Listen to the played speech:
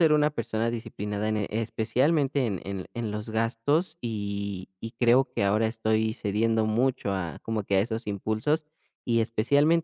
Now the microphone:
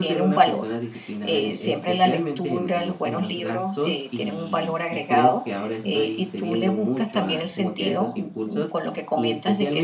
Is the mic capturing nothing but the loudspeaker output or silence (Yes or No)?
No